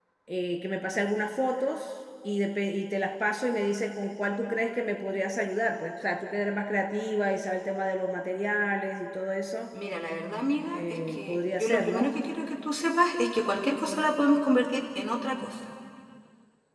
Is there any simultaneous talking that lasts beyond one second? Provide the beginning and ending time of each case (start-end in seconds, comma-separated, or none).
10.7-12.1